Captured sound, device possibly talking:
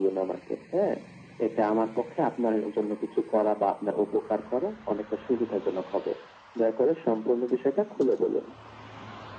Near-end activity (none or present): none